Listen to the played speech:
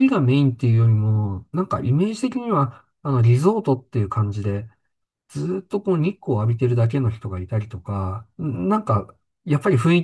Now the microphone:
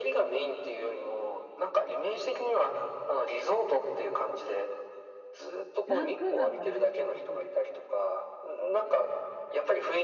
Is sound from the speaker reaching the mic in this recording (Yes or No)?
Yes